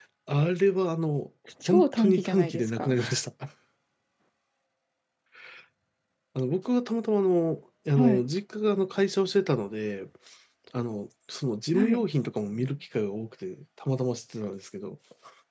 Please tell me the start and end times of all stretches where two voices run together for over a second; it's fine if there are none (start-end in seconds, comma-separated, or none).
1.7-3.0